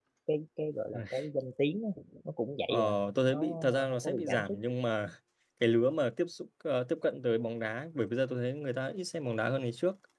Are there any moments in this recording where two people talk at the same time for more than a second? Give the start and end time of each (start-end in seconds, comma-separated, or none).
3.3-4.6